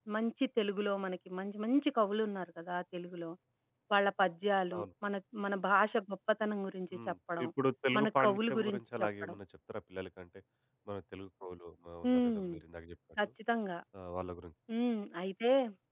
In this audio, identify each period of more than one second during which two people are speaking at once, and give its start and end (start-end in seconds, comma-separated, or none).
8.0-9.4